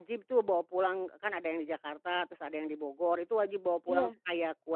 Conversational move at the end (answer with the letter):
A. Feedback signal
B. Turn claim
A